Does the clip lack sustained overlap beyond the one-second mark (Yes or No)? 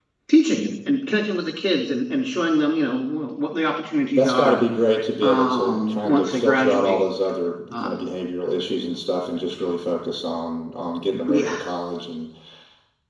No